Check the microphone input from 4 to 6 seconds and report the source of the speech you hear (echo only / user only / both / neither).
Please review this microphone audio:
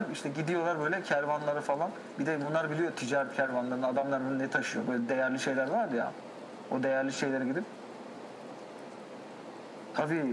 echo only